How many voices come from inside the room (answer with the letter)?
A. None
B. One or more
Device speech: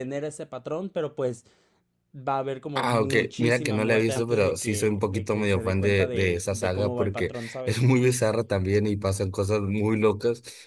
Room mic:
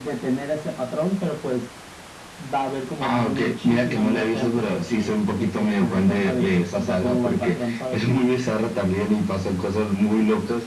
A